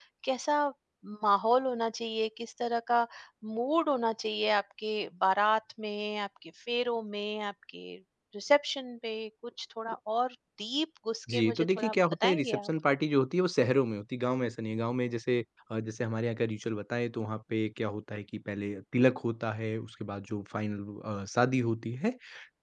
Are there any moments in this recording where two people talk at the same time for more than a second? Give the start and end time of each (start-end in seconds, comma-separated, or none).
11.3-12.7